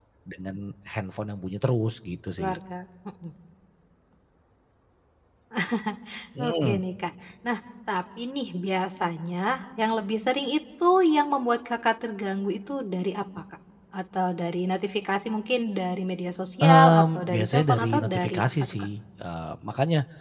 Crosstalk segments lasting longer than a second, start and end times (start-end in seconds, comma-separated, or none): 16.6-18.9